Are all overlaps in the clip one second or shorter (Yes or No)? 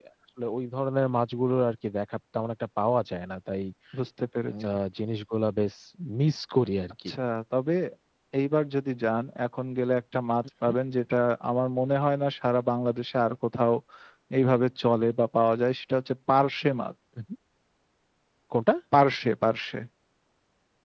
Yes